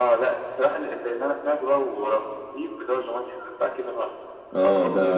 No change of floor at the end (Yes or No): No